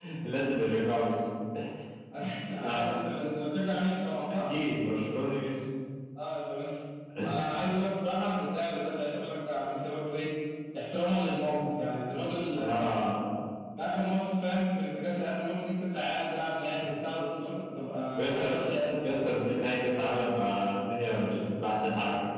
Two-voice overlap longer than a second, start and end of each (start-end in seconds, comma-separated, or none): none